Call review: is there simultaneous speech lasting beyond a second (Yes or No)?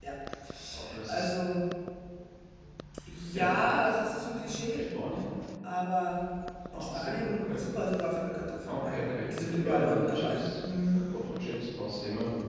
Yes